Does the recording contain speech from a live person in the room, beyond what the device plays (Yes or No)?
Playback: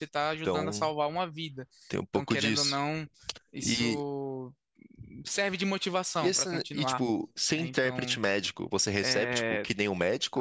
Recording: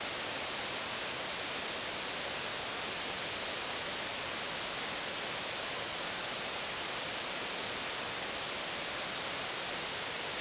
No